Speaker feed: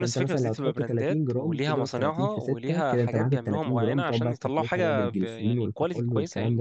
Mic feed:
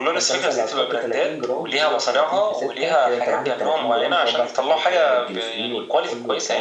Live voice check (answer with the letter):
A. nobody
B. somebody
A